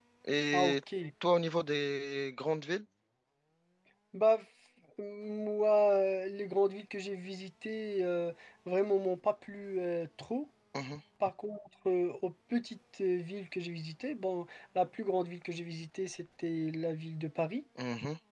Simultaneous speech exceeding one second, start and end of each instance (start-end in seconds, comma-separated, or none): none